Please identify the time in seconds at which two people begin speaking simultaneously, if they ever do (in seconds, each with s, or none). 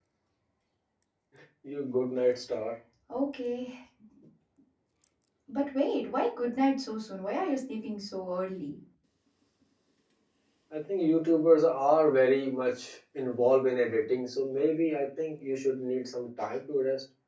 none